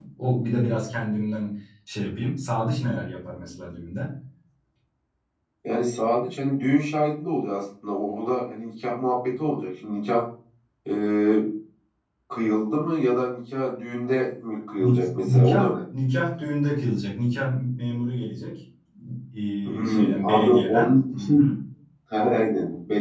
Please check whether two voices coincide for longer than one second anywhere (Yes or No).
Yes